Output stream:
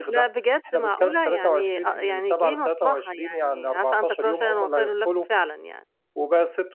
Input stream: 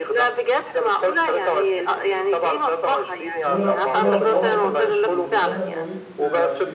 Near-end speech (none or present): present